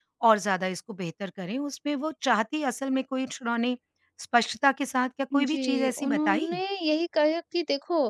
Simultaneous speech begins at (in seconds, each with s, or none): 5.3 s